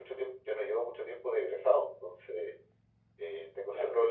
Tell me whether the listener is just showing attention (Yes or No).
Yes